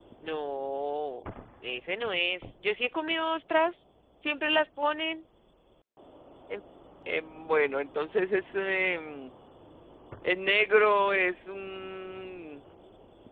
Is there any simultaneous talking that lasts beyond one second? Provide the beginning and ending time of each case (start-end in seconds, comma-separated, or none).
none